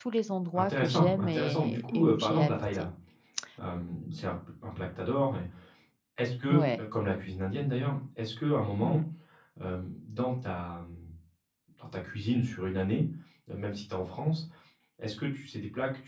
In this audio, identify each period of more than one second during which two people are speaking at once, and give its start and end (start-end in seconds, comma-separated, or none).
0.5-2.9